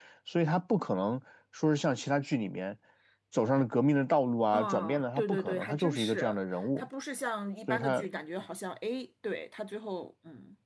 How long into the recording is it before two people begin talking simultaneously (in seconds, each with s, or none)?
4.5 s